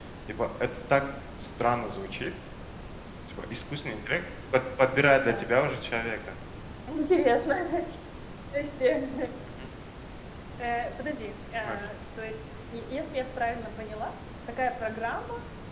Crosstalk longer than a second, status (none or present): none